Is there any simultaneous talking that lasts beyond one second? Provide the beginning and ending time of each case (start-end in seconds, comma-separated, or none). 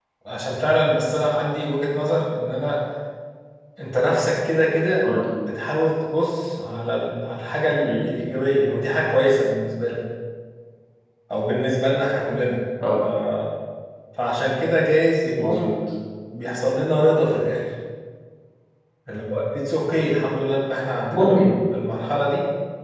none